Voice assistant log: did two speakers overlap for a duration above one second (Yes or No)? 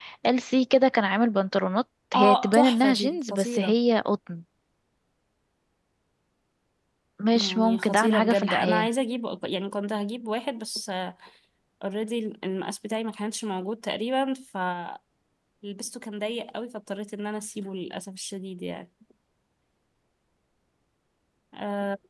Yes